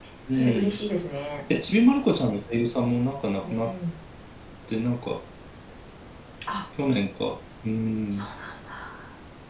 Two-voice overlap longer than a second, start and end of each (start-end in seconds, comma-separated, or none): none